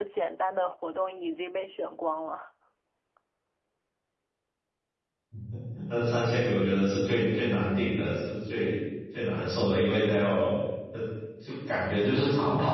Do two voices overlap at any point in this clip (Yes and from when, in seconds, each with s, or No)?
No